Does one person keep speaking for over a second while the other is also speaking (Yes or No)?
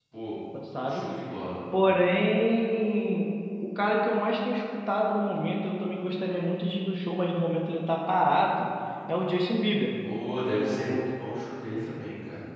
No